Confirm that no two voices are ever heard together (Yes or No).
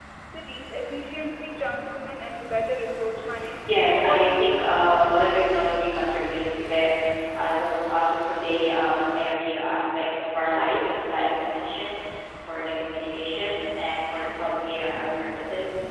No